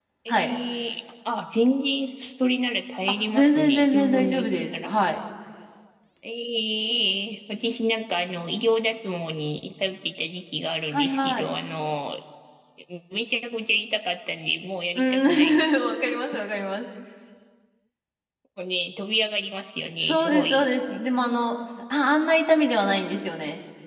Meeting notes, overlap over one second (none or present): present